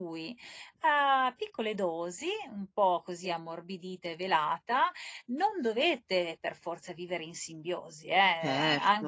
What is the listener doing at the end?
listening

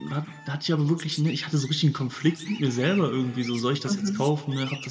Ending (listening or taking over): listening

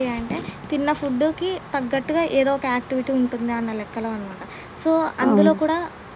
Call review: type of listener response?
listening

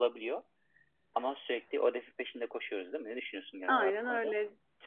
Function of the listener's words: taking over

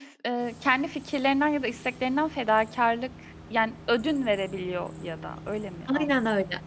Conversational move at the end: taking over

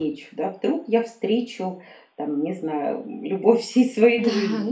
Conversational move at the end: taking over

